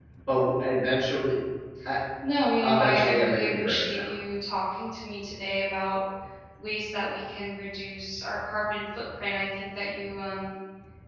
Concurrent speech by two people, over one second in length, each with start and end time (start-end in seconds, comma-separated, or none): 2.4-4.1